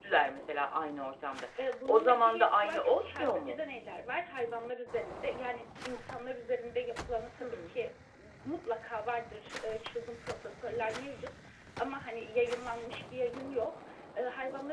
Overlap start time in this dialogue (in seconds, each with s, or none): 1.9 s